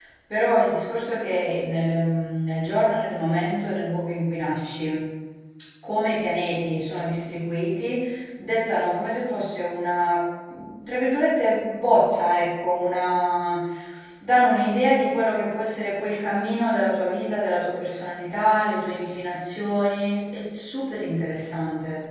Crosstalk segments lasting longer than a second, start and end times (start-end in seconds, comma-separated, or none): none